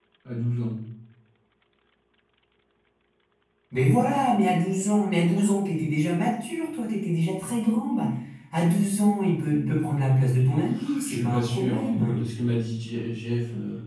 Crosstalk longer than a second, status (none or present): present